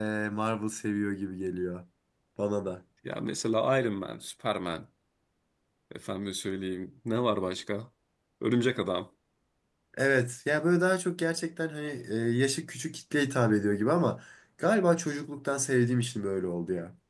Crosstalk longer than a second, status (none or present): none